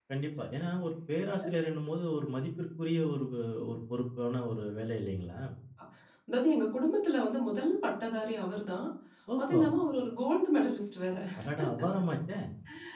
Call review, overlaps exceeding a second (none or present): none